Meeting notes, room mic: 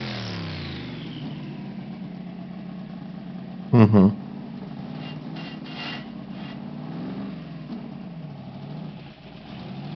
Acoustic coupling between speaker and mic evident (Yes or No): No